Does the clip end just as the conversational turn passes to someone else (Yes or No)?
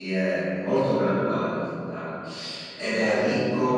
Yes